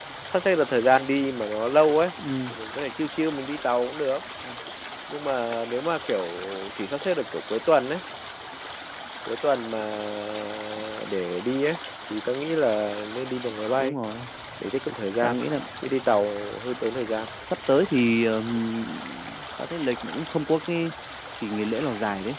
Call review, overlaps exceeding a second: none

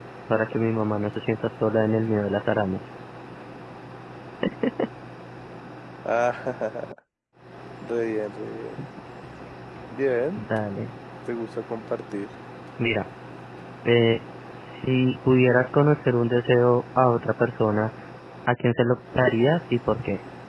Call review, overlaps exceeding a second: none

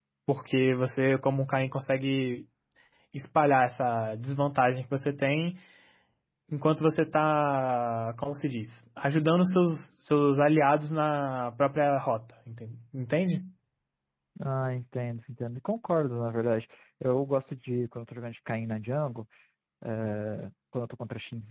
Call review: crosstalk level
none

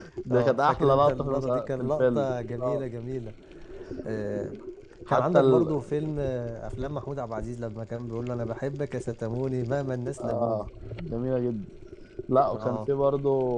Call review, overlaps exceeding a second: present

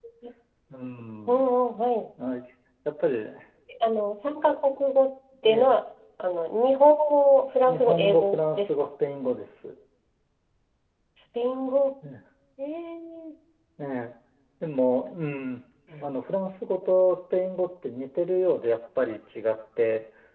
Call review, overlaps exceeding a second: present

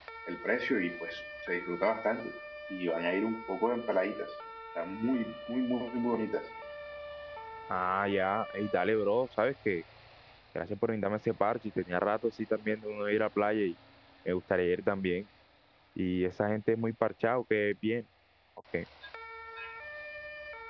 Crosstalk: none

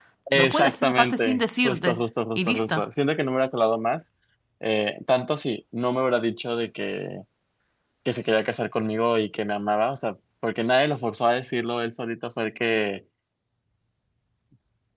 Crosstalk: present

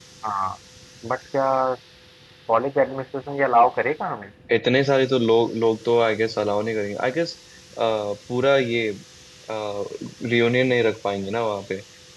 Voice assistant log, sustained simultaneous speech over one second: none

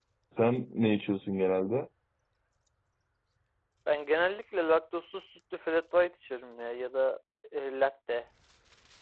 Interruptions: none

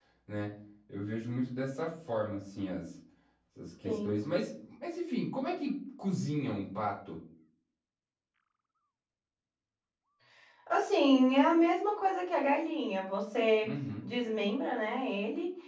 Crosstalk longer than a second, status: none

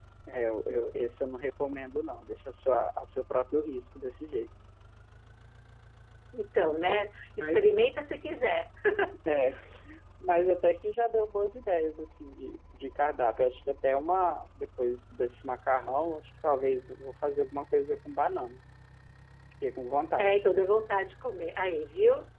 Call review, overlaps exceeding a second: none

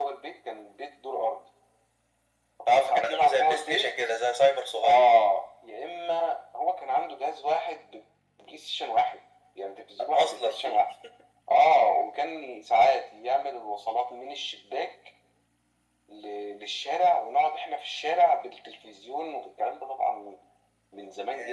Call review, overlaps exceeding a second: present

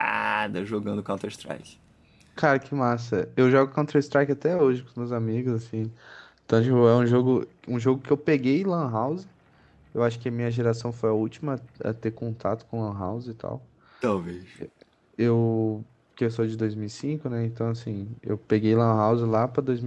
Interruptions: none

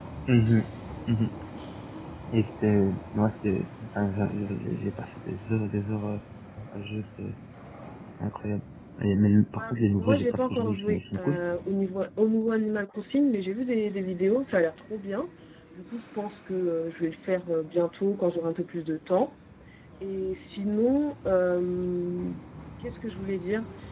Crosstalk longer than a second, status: present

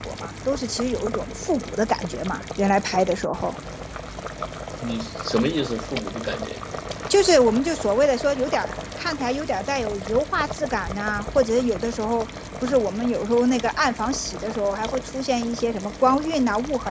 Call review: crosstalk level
none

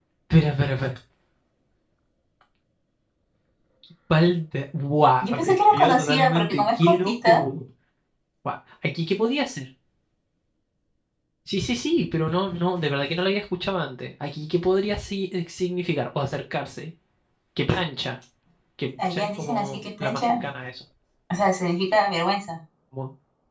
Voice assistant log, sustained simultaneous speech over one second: present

